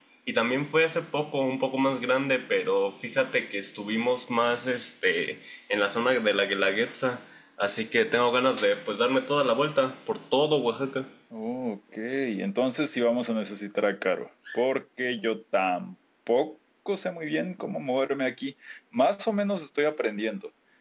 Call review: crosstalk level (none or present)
none